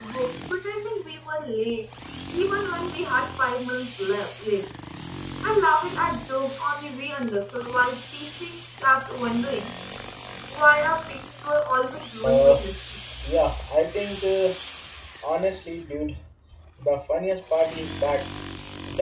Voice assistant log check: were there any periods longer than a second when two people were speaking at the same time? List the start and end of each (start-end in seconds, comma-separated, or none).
none